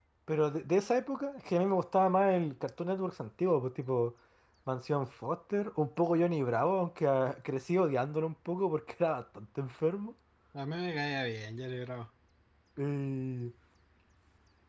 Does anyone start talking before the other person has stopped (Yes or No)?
No